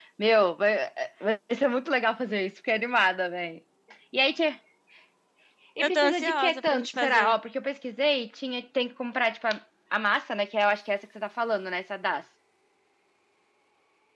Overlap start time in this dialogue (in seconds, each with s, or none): 5.8 s